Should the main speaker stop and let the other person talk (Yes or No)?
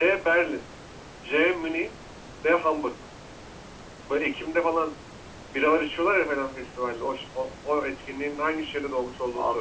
Yes